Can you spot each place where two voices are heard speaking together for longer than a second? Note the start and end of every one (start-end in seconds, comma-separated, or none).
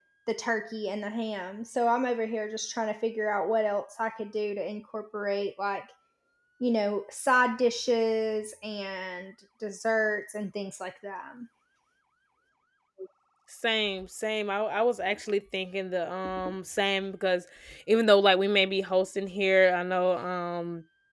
none